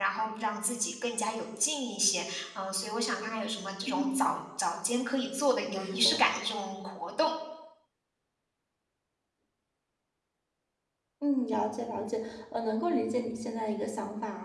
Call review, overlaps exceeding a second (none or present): none